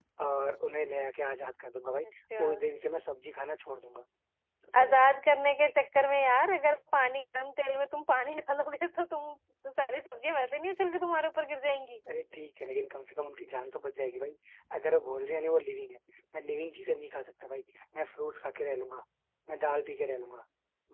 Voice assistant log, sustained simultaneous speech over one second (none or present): none